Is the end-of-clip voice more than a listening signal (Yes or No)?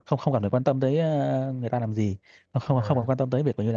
No